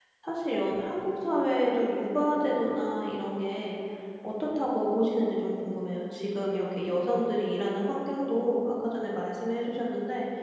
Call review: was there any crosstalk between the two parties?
No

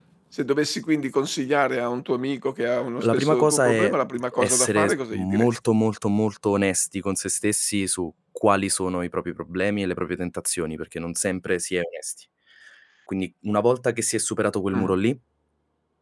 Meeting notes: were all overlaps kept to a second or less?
No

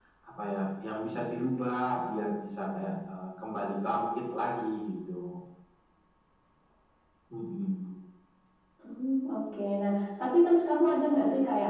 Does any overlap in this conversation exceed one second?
No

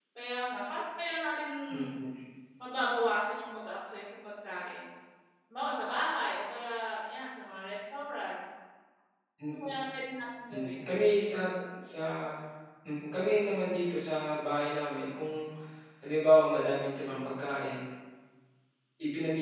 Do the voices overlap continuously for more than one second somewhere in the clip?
No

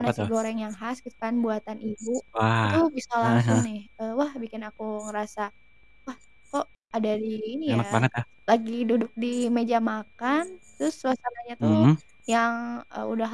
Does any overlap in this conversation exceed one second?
No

